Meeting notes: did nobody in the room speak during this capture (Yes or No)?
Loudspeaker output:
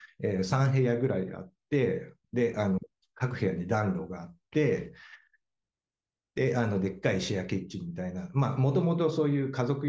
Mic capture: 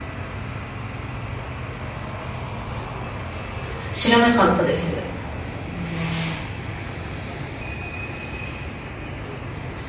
No